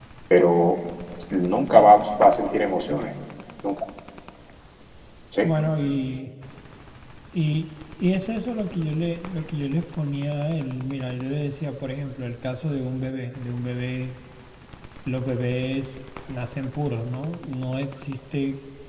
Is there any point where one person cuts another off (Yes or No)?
No